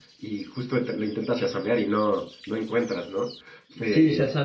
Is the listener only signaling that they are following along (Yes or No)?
No